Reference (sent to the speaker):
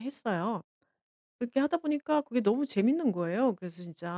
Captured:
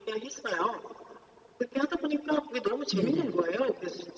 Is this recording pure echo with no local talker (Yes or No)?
No